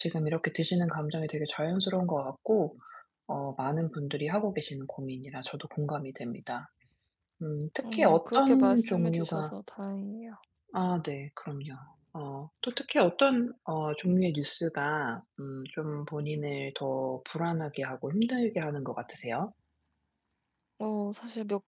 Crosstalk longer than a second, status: present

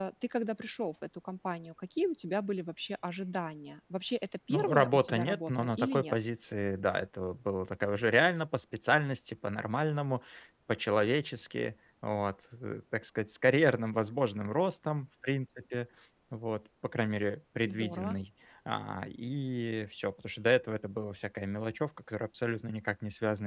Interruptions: present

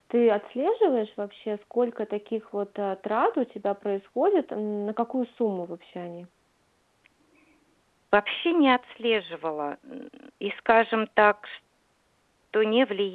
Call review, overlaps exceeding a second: none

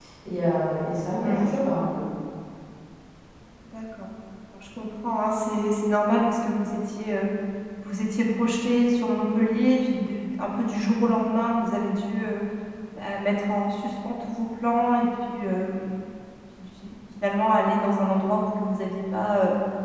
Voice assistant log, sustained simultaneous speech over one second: none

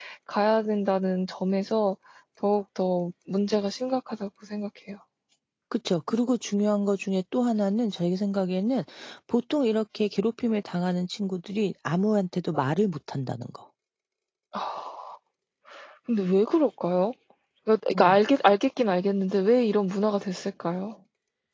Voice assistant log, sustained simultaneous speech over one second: none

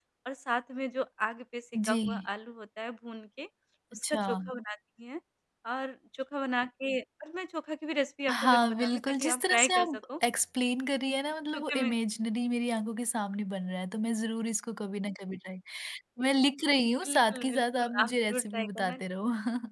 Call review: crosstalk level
present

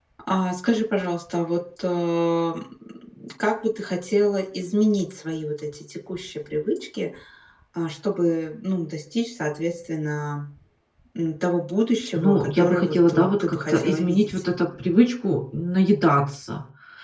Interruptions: present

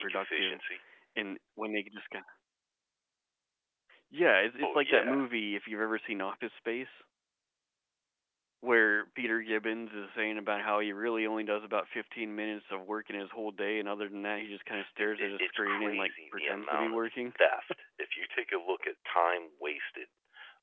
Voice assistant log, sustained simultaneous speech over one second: present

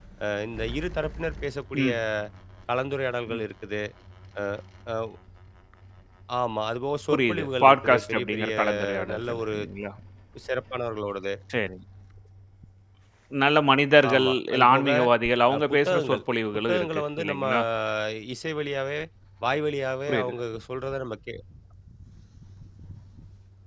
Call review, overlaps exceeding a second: present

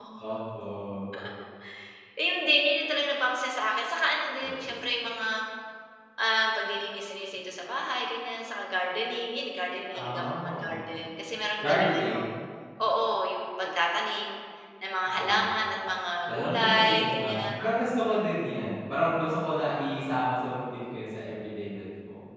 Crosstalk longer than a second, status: present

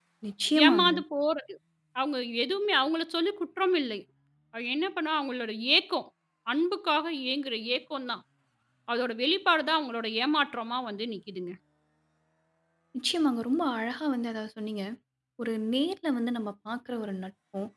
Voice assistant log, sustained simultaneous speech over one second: none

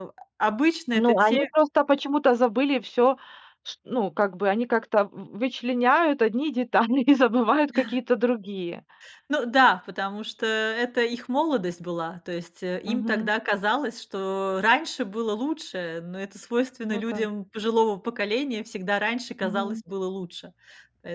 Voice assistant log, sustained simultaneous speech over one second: none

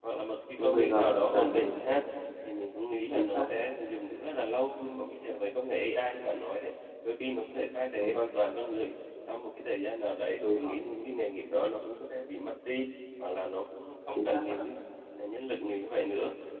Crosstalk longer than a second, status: present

